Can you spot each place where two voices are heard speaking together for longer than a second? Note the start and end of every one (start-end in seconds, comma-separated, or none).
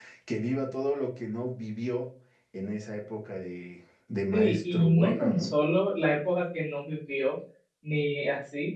4.3-5.5